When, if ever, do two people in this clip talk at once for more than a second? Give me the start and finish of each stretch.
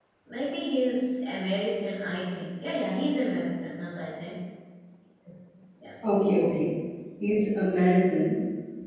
none

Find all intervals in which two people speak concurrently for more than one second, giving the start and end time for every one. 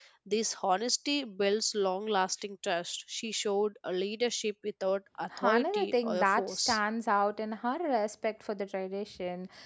5.4-6.8

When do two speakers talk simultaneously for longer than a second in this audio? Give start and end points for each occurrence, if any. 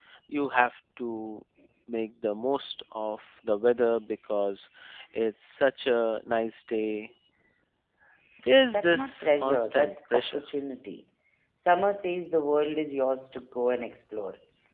8.7-10.4

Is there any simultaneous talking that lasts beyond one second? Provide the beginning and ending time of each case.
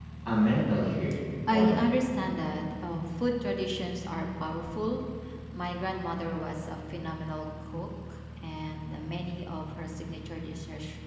none

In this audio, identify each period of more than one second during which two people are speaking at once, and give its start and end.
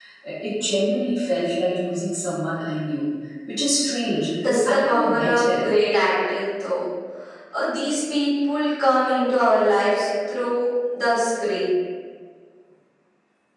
4.4-5.7

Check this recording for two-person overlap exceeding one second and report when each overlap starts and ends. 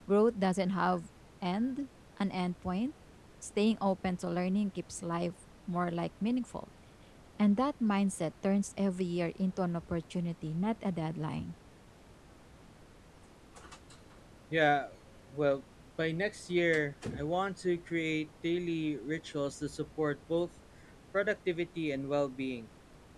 none

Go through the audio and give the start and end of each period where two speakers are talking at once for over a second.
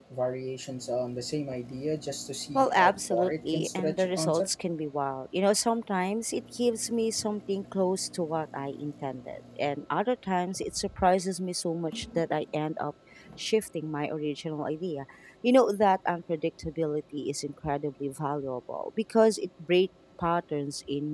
2.6-4.5

